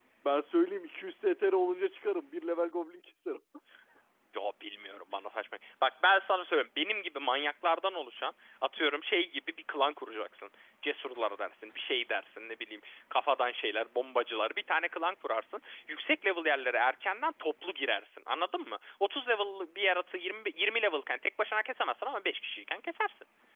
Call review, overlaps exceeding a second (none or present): none